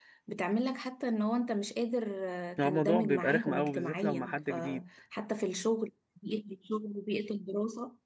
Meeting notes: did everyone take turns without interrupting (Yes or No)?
No